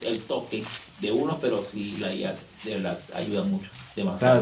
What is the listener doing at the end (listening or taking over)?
taking over